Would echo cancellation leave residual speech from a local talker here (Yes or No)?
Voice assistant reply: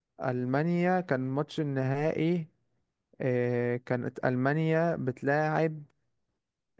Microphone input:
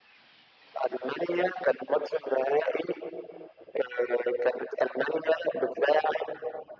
No